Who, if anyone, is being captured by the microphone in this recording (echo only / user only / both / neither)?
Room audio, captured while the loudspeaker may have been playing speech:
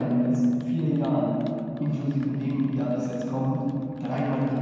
echo only